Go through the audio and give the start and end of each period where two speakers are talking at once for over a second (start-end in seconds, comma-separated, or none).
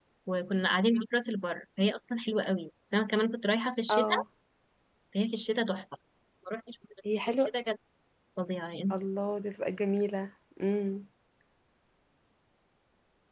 none